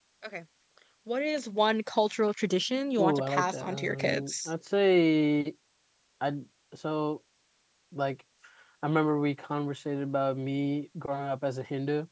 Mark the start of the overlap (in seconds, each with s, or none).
3.0 s